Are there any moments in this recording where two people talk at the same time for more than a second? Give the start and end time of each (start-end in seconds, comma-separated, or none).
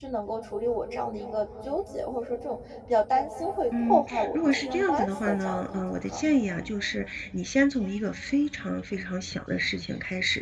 3.7-6.3